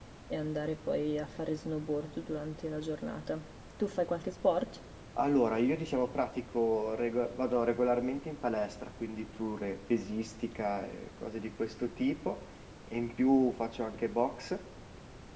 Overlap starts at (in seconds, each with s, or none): none